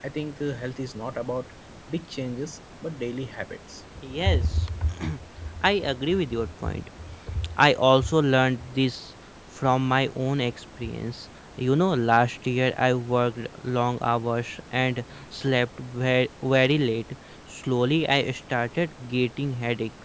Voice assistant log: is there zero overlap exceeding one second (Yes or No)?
Yes